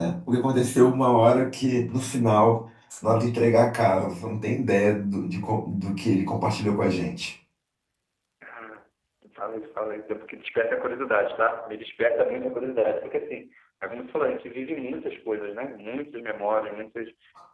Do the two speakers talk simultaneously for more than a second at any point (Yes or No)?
No